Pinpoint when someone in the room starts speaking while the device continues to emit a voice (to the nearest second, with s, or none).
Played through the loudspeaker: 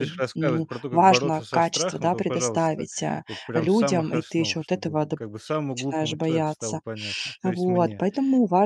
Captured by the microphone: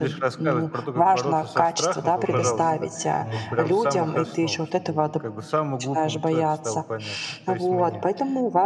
2 s